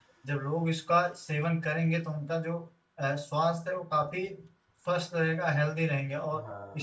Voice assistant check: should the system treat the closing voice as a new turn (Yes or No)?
No